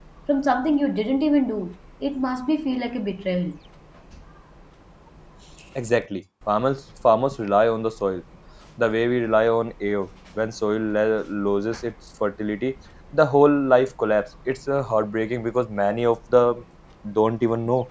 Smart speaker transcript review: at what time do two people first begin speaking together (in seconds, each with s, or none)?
none